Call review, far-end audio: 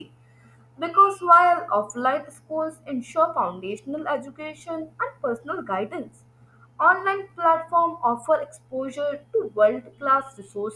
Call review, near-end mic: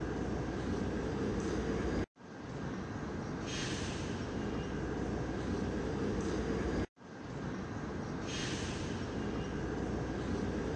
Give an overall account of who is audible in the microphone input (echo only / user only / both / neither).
neither